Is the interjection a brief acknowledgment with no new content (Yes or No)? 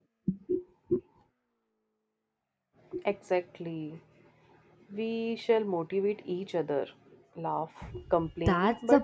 No